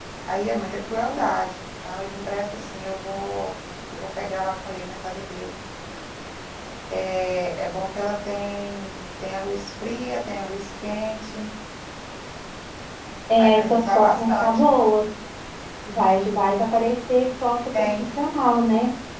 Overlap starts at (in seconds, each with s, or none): 13.4 s